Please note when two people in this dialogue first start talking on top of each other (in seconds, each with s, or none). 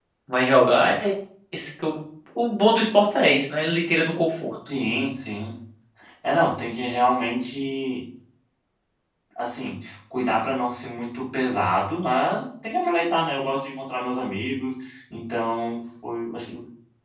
none